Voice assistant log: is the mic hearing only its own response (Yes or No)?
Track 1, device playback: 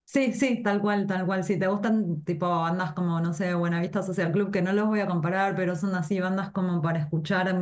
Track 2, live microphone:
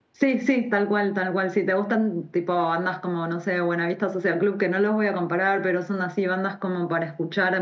Yes